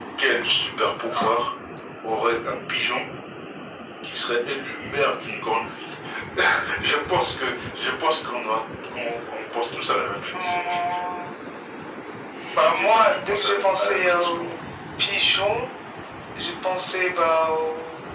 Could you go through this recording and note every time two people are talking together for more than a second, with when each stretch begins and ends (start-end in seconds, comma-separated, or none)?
12.8-14.5